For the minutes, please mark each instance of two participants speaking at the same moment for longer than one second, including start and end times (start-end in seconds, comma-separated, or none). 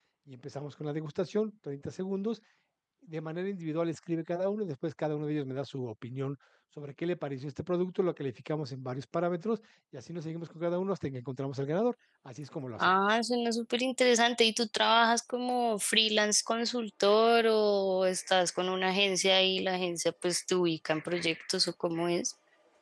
none